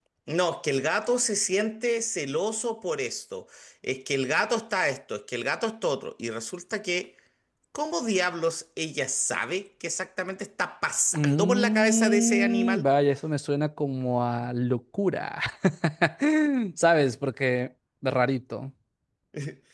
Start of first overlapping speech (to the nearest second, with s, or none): 11 s